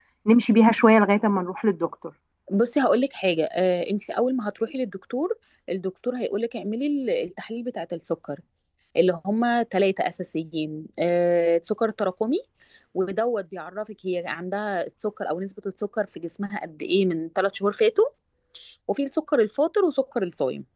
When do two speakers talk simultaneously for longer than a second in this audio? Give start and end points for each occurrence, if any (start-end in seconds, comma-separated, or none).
none